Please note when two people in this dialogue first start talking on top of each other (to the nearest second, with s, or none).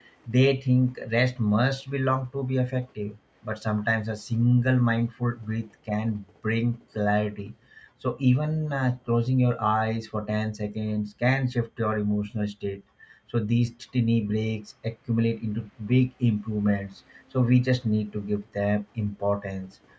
none